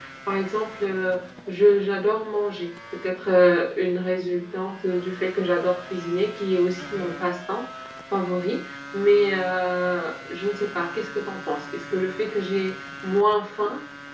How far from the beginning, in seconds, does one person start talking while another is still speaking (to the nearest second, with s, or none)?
none